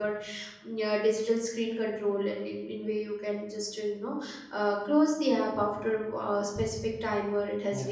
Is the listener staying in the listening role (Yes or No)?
Yes